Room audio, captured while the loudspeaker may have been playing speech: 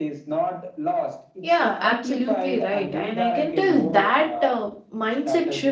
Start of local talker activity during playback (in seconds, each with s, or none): 1.4 s